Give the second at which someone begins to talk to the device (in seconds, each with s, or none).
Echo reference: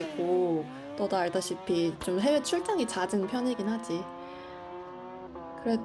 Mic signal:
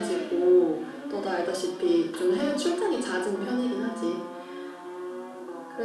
none